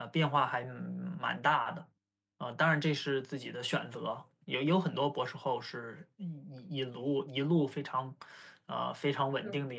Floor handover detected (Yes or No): No